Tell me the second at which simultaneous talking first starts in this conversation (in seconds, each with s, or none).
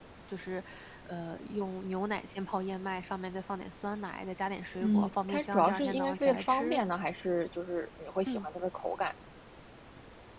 4.8 s